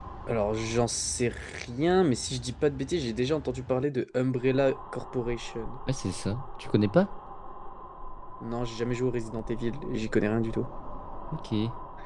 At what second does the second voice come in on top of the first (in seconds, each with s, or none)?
none